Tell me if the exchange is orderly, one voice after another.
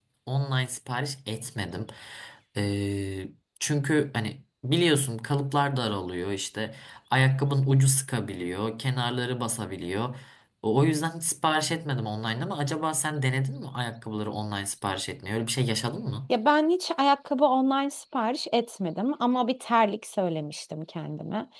Yes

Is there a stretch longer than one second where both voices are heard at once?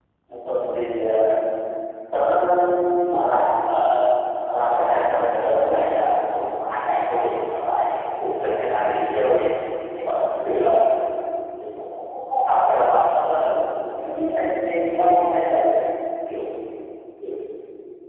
Yes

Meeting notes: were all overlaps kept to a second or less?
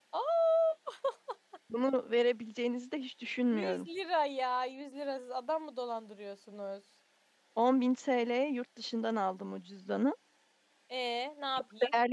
Yes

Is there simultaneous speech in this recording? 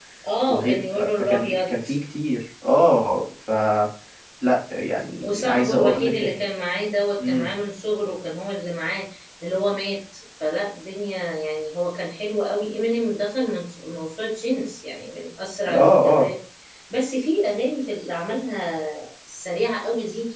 Yes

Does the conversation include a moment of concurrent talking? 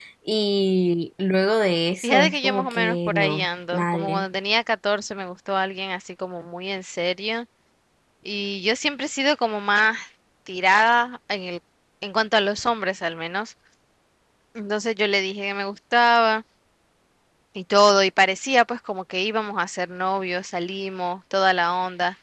Yes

